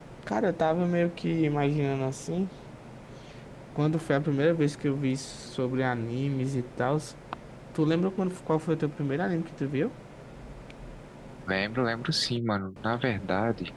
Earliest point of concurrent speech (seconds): none

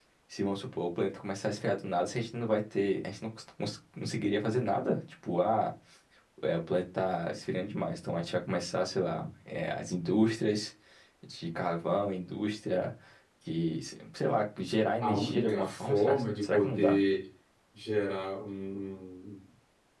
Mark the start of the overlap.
15.0 s

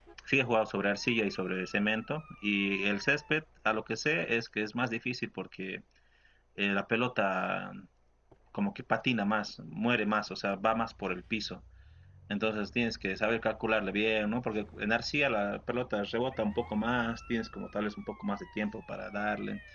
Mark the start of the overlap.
none

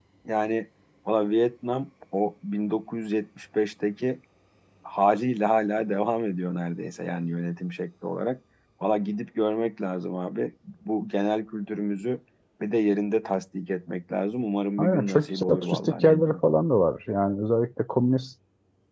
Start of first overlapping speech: 14.8 s

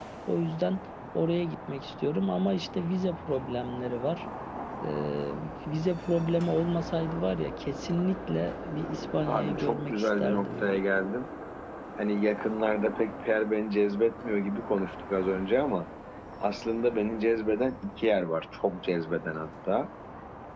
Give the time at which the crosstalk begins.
9.3 s

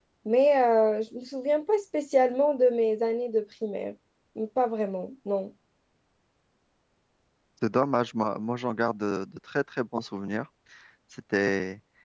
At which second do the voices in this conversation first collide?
none

